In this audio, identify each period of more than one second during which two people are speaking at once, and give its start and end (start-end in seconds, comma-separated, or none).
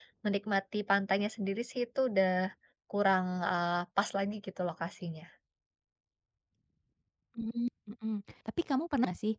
none